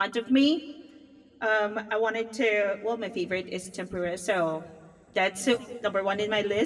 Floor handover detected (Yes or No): No